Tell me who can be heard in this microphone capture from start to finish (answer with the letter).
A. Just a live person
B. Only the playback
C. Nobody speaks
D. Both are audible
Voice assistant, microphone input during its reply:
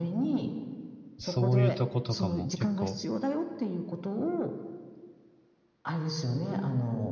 D